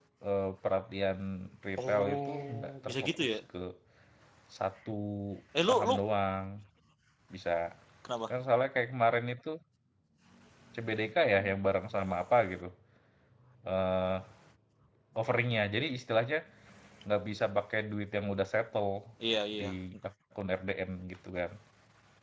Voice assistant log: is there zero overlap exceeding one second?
No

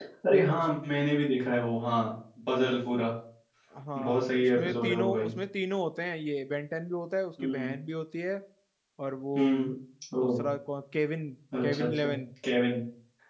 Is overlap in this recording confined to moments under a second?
No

